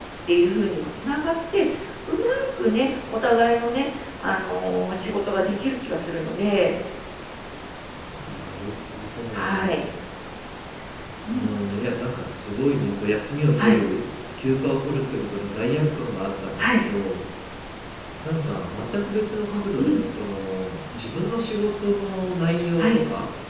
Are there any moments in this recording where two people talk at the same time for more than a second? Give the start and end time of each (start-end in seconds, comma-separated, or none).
none